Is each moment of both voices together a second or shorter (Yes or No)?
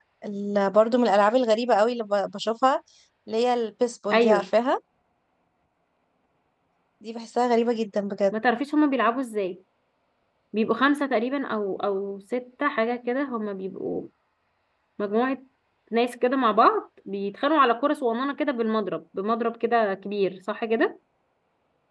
Yes